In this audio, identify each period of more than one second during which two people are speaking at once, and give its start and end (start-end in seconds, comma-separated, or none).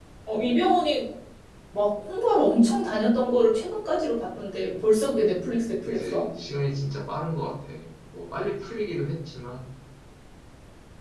none